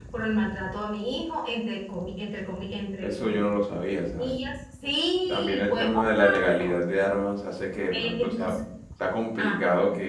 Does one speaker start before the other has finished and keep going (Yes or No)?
Yes